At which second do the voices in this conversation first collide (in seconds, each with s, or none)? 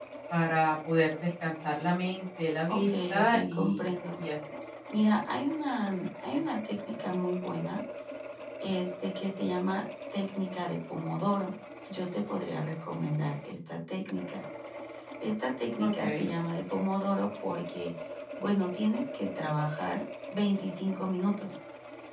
2.7 s